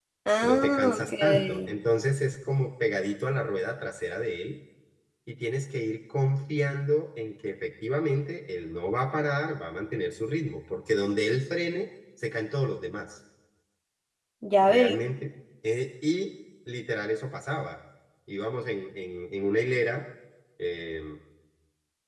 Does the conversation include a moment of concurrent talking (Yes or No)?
Yes